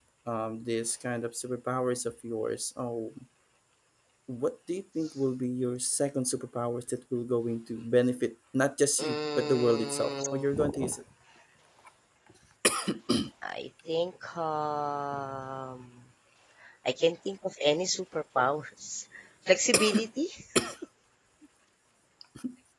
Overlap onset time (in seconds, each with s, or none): 9.0 s